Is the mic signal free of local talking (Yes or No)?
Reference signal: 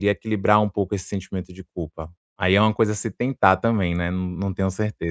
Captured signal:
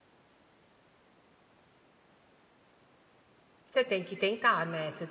No